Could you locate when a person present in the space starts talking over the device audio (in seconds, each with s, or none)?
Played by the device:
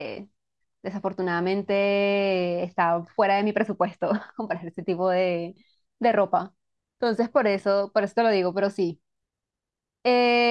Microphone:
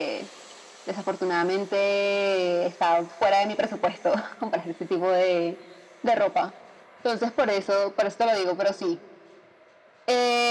none